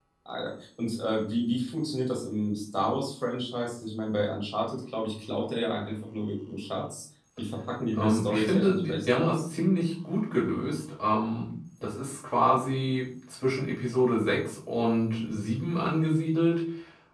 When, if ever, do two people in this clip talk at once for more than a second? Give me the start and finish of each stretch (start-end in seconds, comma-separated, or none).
8.0-9.4